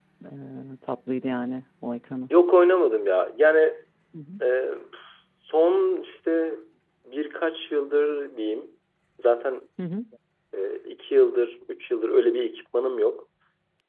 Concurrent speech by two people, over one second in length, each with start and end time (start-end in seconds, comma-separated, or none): none